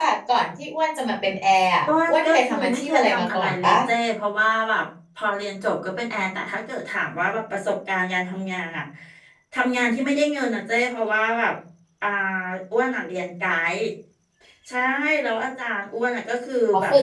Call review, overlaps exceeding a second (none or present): present